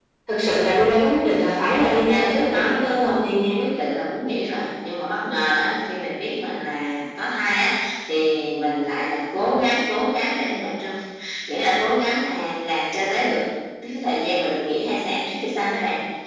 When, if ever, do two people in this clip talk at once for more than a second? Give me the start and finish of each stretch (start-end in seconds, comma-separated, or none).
1.6-3.5